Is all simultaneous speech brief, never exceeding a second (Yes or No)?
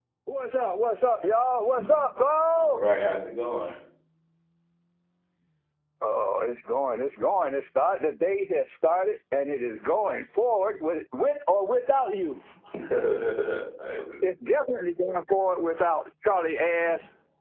Yes